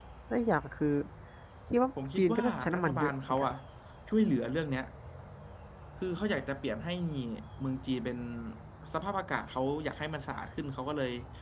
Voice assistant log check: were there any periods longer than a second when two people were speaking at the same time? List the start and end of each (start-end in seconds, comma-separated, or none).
2.2-3.5